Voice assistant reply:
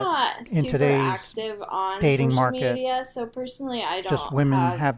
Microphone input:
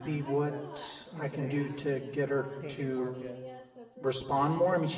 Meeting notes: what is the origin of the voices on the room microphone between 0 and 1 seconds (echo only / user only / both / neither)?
both